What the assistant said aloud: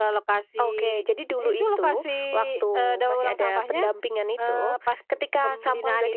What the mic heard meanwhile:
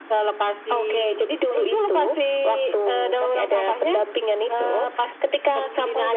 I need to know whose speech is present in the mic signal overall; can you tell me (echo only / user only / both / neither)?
echo only